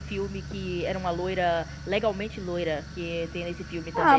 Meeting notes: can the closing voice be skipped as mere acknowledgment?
No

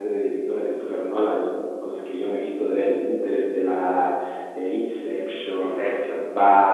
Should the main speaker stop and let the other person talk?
No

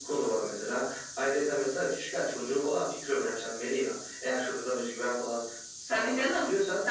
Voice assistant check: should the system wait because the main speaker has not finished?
No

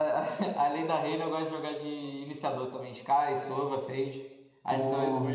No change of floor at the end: No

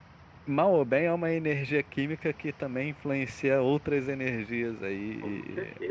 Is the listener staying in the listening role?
No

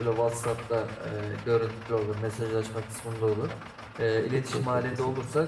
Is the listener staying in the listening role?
Yes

